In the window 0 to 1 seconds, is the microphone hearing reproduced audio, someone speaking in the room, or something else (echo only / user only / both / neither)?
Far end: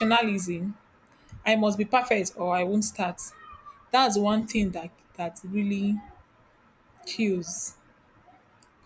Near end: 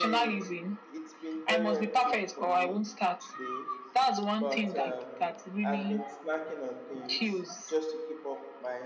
both